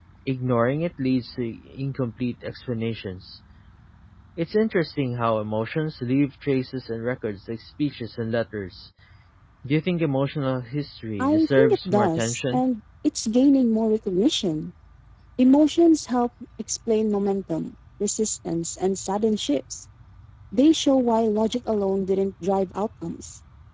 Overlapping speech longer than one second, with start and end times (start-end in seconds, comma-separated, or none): 11.2-12.6